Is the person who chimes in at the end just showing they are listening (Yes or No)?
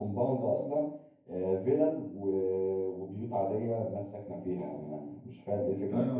No